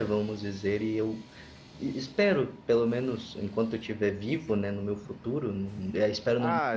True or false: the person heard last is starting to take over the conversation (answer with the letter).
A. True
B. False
A